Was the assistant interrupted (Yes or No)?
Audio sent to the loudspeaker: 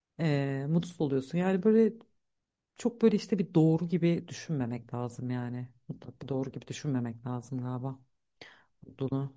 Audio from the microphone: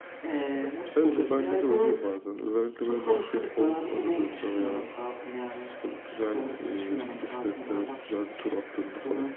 Yes